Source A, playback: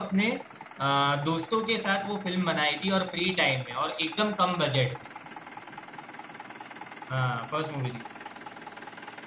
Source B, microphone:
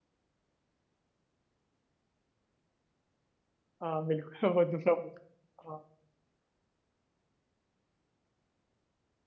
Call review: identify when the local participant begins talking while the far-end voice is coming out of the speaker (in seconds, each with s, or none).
3.8 s